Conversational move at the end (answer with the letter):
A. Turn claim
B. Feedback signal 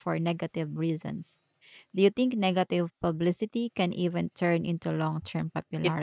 A